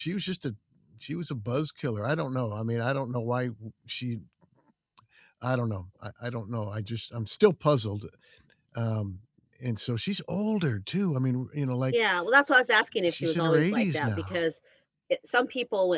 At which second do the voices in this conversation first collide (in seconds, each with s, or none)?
13.1 s